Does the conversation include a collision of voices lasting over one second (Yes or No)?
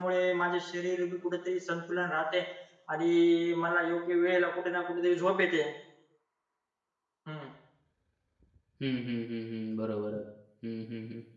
No